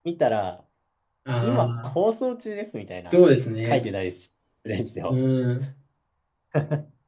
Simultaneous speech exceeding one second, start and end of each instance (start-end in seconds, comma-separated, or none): none